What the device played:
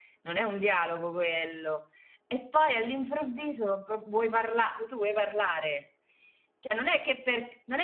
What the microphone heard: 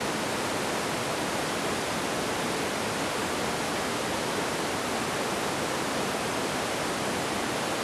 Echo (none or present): none